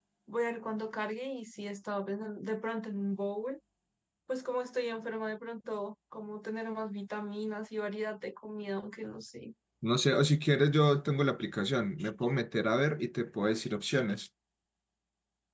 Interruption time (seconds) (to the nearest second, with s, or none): none